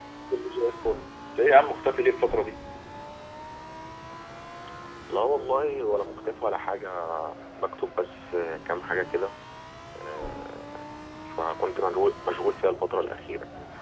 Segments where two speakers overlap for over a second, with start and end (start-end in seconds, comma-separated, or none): none